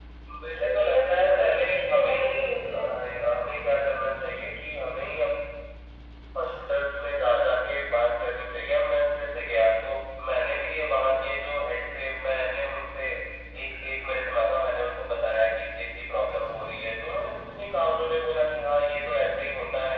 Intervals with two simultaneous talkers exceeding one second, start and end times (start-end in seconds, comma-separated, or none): 0.6-2.9